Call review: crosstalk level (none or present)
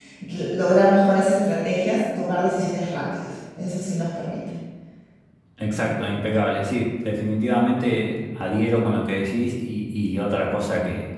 none